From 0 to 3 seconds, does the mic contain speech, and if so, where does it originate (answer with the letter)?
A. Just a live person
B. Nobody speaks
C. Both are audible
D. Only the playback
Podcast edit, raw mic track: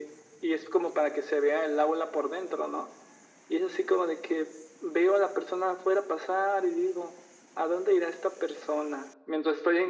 D